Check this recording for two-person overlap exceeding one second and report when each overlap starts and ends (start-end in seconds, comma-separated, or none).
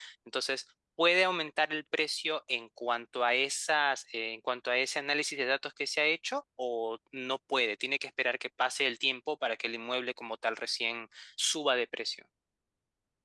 none